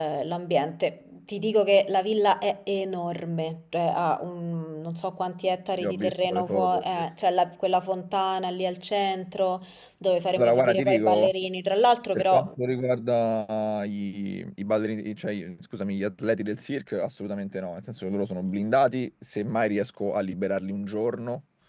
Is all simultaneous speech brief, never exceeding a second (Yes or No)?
No